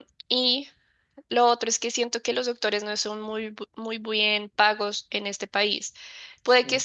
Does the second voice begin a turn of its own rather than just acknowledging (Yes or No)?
No